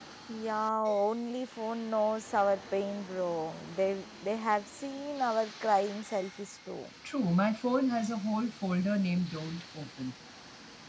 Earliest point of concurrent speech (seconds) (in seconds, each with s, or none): none